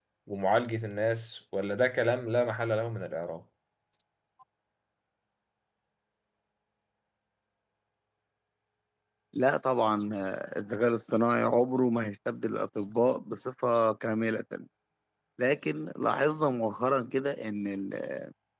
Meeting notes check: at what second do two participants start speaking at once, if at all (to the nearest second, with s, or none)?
none